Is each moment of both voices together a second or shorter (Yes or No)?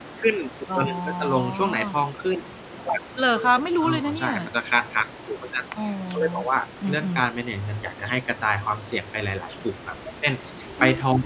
No